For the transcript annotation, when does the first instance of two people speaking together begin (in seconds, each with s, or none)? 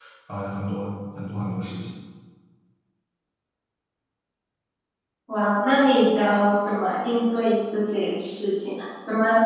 none